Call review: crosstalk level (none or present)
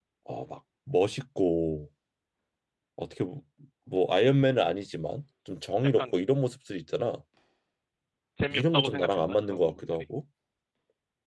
present